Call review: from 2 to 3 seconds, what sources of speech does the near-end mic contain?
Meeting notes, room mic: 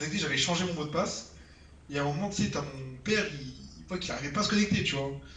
user only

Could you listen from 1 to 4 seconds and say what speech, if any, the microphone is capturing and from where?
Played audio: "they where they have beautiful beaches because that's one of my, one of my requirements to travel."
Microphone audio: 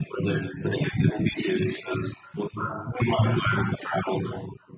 echo only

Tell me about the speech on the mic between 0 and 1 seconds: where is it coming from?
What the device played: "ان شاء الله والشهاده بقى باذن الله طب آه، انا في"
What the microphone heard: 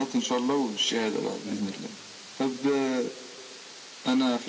echo only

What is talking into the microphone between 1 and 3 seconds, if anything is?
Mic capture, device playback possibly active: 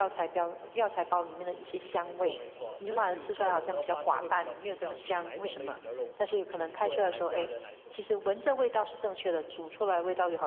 both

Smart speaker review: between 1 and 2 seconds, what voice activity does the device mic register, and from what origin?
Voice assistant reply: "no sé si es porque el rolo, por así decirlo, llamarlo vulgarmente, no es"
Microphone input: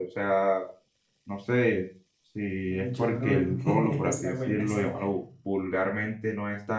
echo only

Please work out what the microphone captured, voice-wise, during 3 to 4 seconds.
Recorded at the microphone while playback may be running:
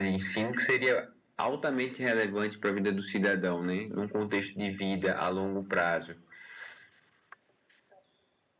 echo only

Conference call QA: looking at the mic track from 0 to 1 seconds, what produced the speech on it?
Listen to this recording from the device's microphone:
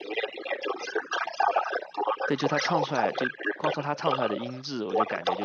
echo only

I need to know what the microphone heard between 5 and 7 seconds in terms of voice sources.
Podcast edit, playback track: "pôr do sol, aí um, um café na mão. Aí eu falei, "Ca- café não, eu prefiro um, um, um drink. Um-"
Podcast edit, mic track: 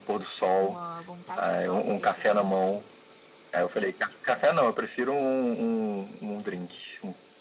echo only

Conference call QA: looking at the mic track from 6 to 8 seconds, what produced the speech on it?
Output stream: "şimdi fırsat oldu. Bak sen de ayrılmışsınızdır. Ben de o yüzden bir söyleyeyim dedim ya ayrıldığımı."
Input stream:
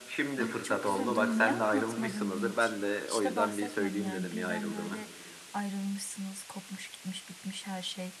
user only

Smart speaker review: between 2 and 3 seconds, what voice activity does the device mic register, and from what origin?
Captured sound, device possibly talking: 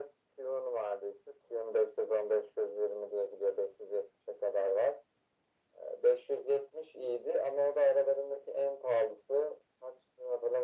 echo only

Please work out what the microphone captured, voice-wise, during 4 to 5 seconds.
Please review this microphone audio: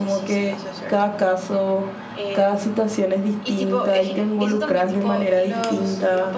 both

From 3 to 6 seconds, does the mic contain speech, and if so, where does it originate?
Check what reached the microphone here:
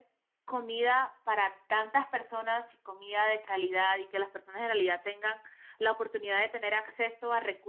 echo only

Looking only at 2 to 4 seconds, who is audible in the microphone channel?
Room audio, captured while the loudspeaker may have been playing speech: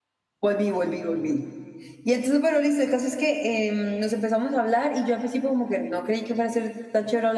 user only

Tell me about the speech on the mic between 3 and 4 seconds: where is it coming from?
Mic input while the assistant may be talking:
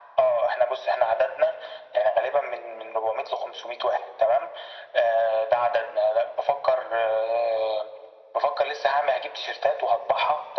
echo only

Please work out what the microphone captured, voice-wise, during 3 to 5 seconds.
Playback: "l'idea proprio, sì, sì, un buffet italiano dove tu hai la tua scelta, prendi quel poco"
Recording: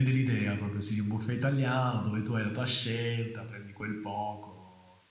echo only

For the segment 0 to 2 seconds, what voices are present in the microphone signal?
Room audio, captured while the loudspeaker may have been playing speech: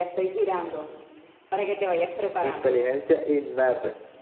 echo only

